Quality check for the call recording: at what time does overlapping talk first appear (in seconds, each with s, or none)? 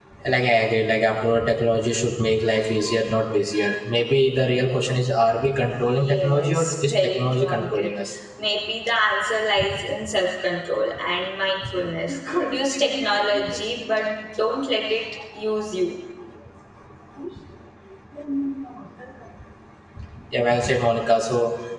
5.6 s